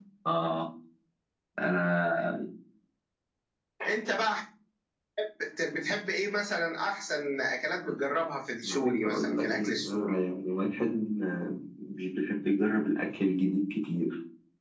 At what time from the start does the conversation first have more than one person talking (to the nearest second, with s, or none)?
9 s